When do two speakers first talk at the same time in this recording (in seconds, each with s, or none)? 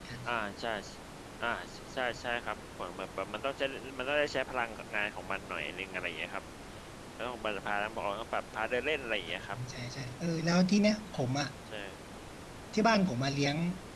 none